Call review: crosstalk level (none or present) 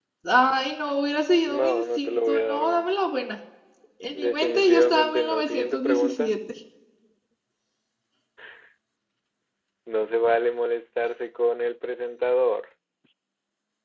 present